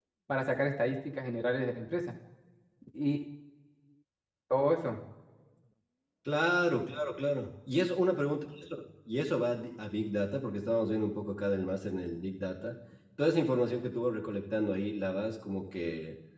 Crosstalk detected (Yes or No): No